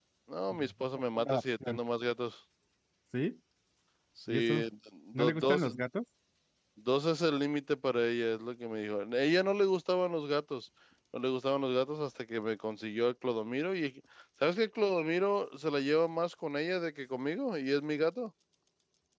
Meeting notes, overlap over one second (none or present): present